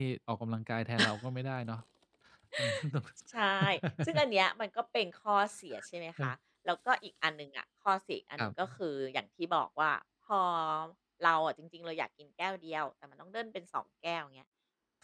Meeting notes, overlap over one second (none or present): none